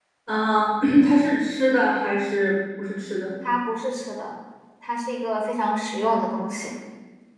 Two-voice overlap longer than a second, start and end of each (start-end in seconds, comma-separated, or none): none